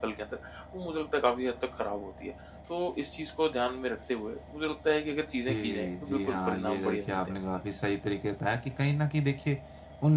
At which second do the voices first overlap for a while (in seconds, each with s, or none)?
5.5 s